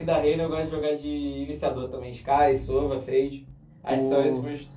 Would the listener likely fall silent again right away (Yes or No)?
No